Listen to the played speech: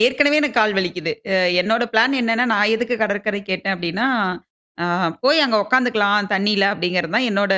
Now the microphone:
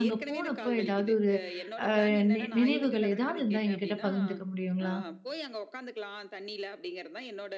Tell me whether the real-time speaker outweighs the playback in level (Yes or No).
Yes